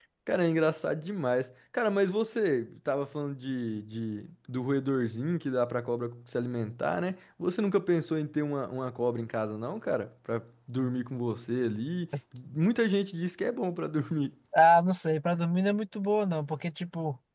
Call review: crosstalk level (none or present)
none